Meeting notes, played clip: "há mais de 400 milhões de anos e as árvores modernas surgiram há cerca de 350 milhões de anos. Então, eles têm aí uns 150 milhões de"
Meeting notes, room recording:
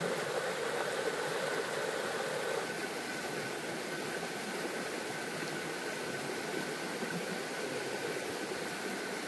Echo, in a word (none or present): none